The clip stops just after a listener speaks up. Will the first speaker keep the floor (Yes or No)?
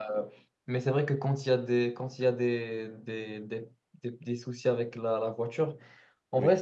Yes